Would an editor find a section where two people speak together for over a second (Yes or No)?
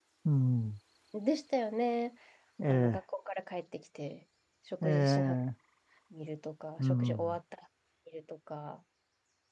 No